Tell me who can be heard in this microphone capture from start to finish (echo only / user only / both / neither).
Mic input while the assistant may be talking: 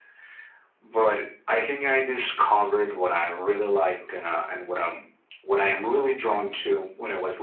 echo only